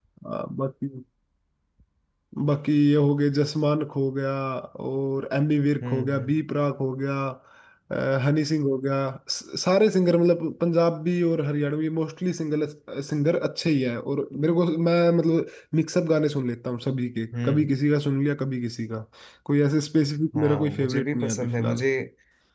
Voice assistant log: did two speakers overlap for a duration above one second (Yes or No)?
Yes